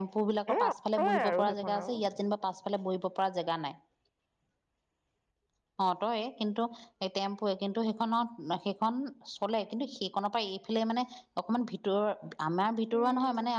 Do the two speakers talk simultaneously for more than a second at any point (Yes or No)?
Yes